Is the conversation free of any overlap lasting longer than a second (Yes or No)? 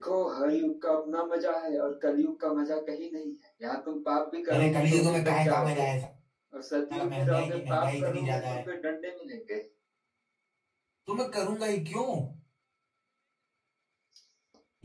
No